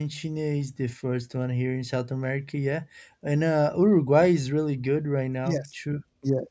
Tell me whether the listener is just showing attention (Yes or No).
No